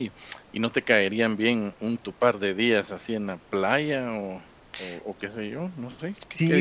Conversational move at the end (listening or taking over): taking over